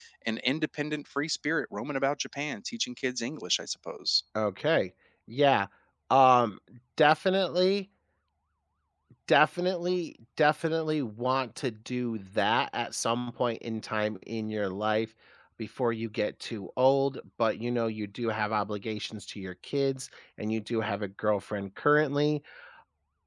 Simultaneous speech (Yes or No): No